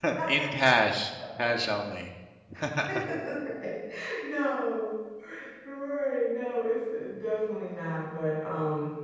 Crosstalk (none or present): none